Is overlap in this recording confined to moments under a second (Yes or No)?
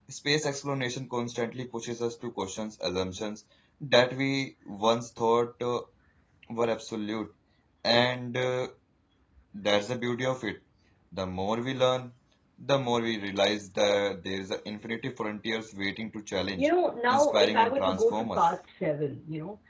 No